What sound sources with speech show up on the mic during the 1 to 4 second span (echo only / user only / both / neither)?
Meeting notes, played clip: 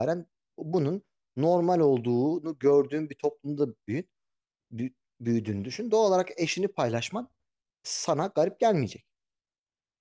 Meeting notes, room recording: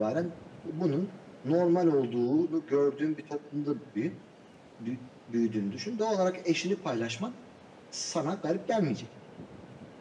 echo only